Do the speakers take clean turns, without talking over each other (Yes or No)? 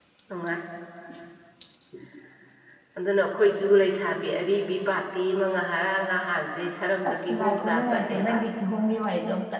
No